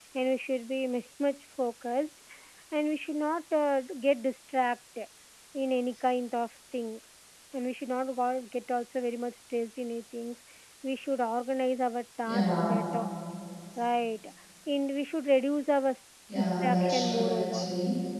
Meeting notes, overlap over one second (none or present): present